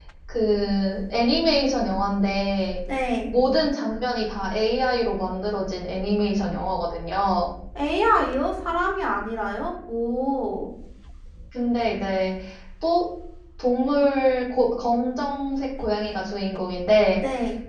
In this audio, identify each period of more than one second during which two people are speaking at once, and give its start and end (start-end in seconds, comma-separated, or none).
none